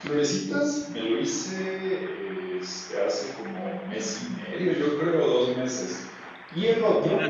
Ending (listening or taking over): taking over